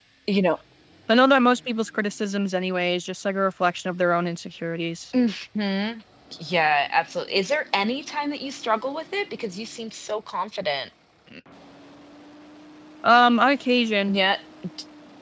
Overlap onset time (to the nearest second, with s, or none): none